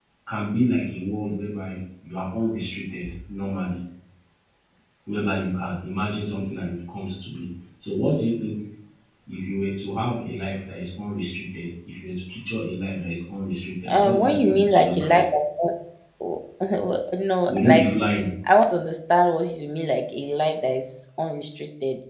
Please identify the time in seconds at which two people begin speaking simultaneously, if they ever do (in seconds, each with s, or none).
13.9 s